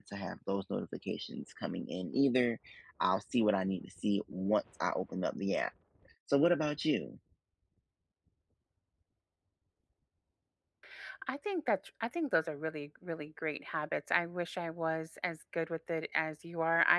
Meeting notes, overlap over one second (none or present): none